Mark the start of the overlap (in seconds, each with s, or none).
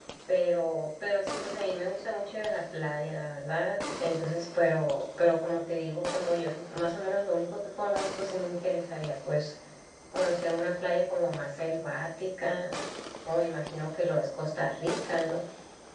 none